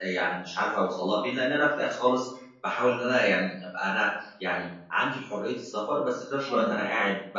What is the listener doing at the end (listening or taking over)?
listening